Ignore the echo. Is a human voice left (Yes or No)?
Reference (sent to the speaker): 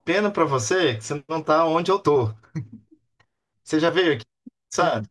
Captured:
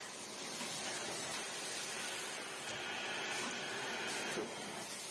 No